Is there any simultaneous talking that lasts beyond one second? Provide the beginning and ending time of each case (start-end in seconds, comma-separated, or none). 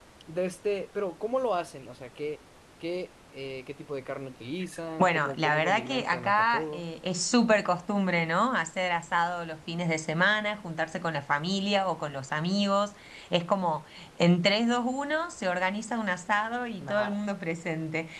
5.0-6.8